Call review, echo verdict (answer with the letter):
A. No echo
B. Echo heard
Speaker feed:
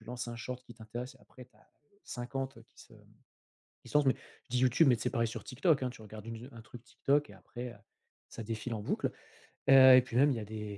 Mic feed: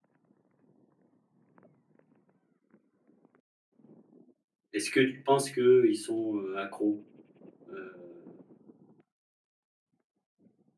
A